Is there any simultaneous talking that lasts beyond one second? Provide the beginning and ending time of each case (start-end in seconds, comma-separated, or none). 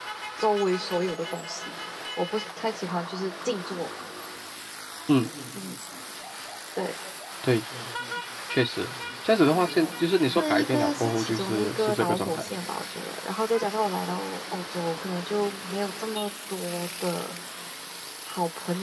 10.4-12.4